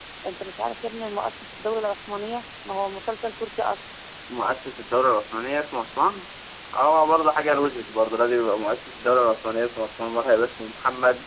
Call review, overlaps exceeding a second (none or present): none